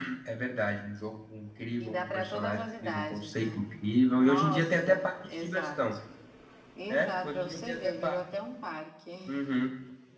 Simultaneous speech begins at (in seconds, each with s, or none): 1.8 s